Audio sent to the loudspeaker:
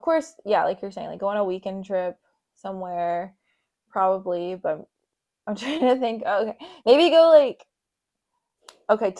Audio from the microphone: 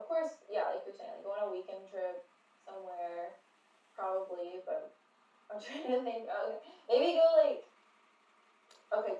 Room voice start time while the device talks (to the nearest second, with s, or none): none